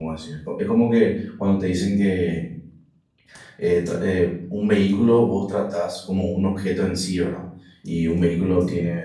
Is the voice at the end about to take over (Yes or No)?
No